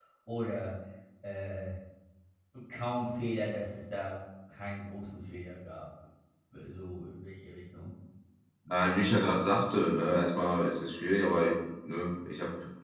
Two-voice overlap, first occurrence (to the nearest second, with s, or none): none